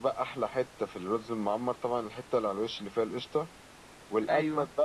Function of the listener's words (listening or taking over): listening